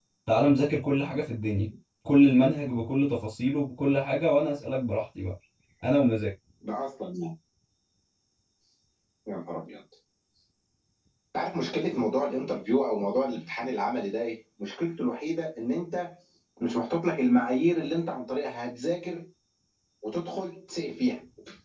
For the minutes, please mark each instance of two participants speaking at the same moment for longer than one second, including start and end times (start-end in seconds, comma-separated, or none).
none